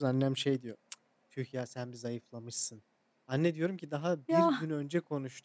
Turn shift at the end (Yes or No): No